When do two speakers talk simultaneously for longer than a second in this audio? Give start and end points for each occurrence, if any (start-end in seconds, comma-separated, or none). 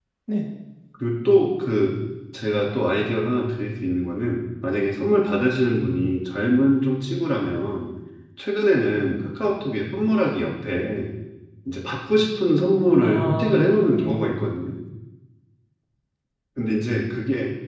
13.0-14.3